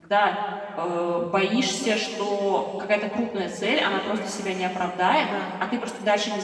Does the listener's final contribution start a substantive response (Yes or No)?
No